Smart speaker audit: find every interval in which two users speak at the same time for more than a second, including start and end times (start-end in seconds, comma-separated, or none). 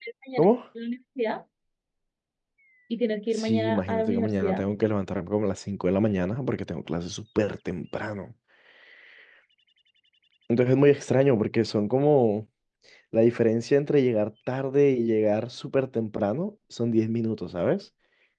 3.3-4.7